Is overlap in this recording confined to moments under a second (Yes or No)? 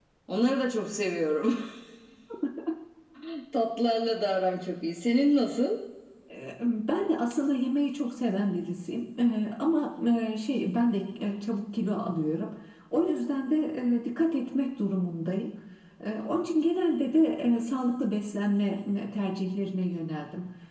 Yes